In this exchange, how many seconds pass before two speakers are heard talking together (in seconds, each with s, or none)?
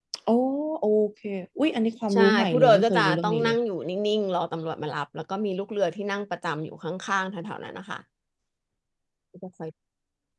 2.1 s